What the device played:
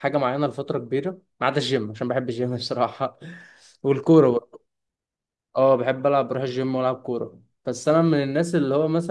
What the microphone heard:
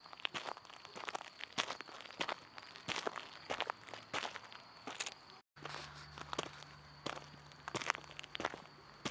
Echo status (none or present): none